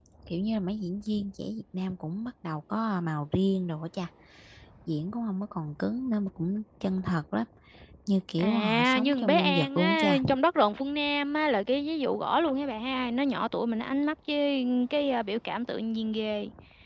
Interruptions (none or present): present